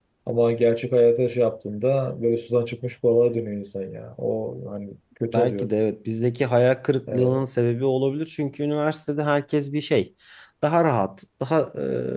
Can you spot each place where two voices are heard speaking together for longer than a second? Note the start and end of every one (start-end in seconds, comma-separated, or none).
none